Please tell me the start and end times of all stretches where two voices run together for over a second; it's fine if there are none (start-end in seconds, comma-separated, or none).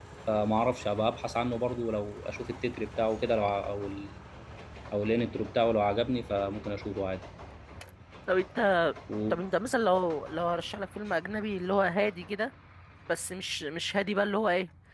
none